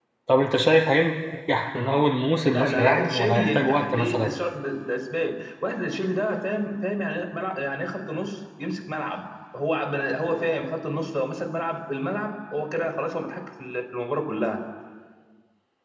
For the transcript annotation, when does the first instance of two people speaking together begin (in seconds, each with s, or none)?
2.5 s